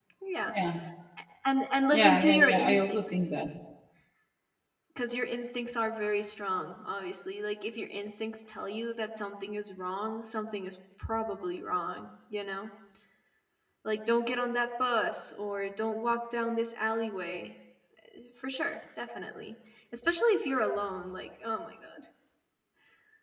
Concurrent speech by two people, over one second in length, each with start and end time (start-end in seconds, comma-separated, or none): 1.9-3.3